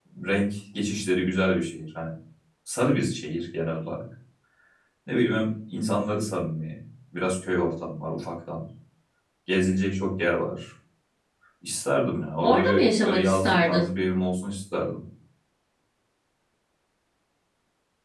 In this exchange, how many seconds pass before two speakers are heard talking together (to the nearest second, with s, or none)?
12 s